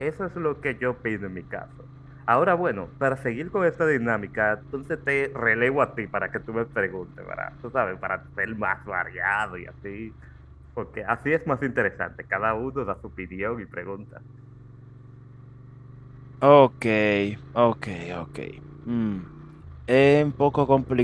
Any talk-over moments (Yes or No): No